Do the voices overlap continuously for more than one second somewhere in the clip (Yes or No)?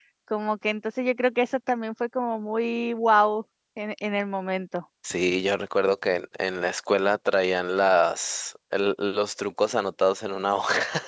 No